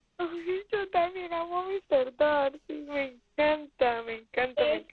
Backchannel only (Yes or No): No